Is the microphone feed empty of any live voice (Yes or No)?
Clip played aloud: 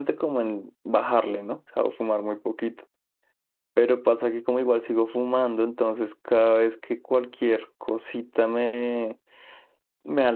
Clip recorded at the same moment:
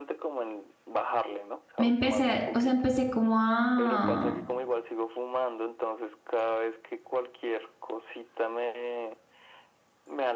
No